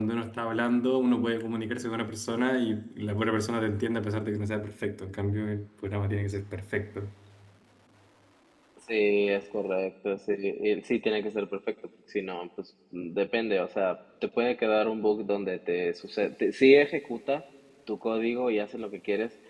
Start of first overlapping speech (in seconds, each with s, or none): none